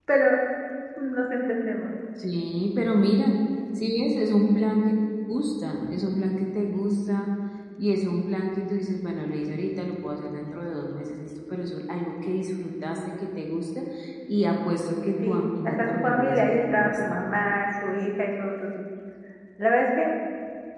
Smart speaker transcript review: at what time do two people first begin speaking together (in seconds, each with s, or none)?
15.2 s